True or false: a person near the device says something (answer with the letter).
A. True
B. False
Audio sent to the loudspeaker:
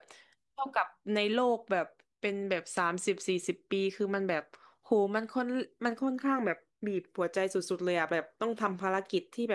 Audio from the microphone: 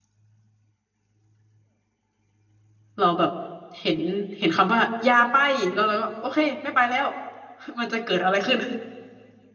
A